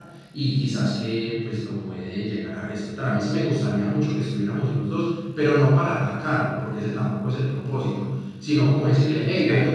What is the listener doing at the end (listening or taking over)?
listening